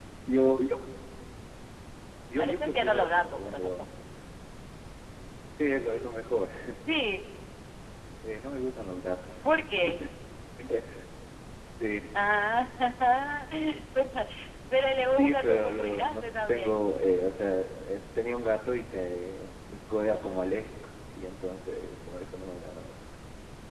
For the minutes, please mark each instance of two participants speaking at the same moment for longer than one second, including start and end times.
2.4-3.8, 15.0-16.7

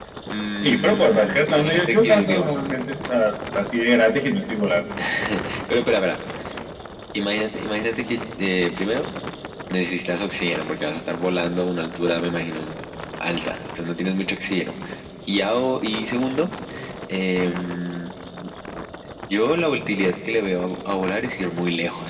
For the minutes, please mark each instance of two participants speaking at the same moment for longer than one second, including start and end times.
0.6-2.5

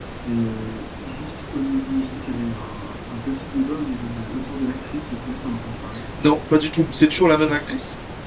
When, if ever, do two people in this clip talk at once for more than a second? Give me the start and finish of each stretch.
none

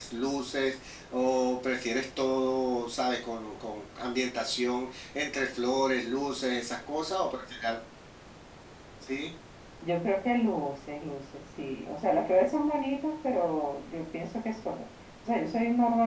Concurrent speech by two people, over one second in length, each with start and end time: none

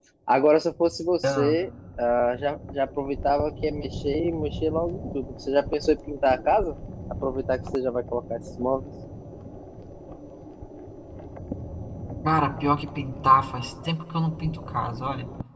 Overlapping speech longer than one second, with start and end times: none

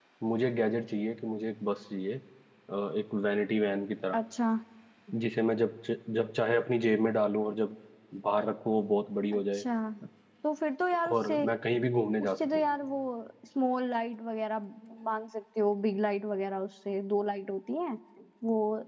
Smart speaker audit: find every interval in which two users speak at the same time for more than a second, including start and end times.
none

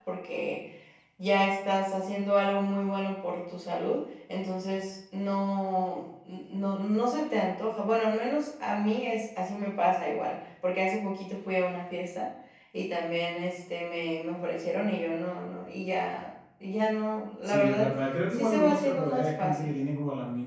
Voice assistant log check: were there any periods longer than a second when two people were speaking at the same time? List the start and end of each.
18.3-19.7

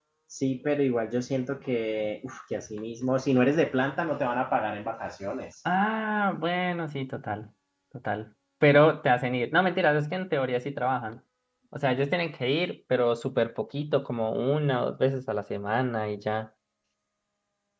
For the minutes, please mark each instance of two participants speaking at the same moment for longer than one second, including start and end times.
none

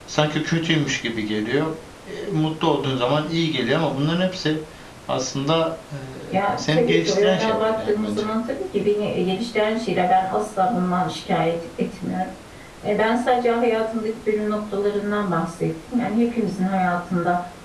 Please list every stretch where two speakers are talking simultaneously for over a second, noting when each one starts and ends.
6.6-8.3

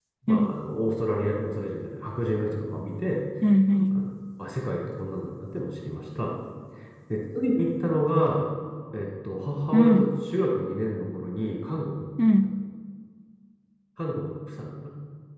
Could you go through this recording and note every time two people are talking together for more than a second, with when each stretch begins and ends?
none

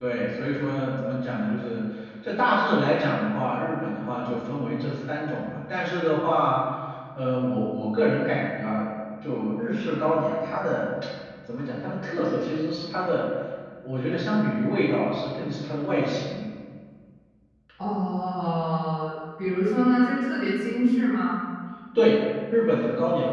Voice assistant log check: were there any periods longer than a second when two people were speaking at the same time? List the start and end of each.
none

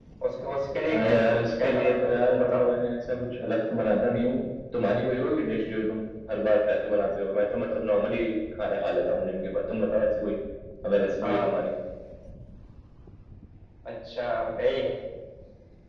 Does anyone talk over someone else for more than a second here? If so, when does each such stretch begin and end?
0.9-2.6

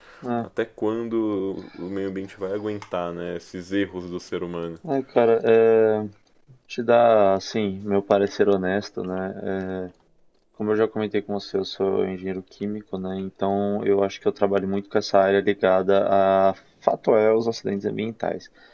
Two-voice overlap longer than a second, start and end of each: none

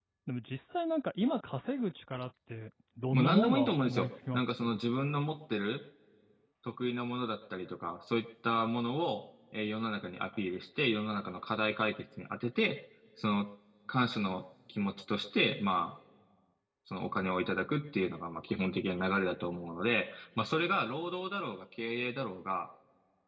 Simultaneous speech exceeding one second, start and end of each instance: 3.1-4.8

